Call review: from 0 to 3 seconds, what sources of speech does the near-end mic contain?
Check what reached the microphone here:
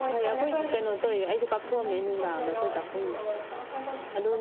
both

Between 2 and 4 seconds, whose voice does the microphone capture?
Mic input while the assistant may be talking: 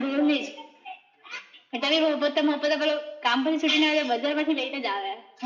echo only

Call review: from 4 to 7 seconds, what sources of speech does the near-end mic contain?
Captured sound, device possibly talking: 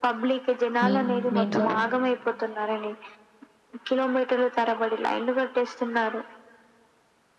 echo only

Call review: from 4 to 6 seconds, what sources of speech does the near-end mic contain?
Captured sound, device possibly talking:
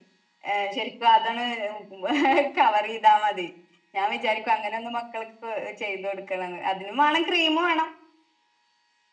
echo only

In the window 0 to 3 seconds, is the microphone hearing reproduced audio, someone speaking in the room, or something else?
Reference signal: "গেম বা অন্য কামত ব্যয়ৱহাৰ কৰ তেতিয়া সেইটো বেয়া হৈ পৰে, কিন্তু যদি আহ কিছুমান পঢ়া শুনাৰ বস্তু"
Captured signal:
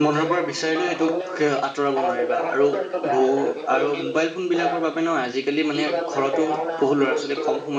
both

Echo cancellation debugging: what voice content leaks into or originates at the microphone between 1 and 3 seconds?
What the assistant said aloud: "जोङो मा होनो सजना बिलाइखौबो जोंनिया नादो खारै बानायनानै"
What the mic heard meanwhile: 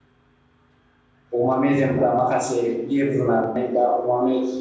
user only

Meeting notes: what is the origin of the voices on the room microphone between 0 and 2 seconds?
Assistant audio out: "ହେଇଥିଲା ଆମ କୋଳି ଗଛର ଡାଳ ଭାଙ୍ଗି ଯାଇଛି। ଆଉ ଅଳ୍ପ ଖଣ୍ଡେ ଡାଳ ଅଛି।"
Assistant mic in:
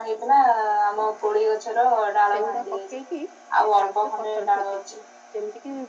echo only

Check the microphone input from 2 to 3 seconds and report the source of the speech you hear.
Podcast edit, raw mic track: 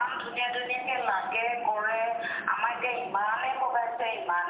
echo only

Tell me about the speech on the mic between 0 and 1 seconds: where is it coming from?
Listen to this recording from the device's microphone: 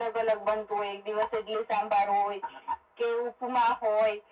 echo only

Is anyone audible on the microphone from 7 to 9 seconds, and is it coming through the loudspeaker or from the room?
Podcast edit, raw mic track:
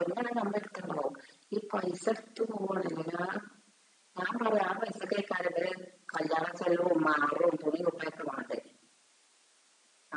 echo only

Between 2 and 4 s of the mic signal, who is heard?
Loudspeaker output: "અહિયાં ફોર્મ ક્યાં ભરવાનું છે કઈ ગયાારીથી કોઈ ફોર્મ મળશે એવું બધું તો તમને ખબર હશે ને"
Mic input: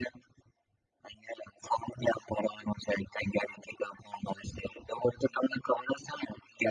echo only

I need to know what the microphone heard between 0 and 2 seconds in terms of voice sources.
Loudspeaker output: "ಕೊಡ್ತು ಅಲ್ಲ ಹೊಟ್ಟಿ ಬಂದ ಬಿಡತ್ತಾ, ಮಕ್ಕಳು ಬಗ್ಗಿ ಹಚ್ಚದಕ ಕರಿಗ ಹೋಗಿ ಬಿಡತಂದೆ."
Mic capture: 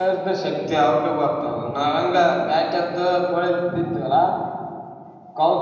user only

